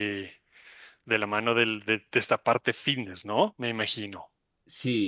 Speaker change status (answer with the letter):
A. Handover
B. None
A